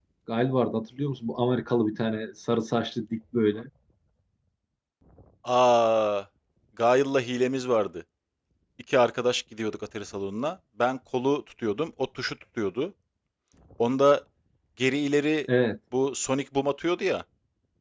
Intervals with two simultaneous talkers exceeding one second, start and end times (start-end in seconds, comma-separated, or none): none